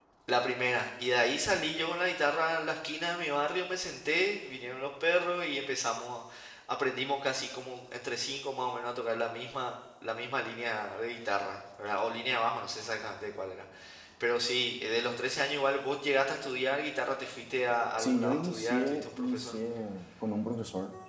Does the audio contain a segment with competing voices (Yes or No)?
Yes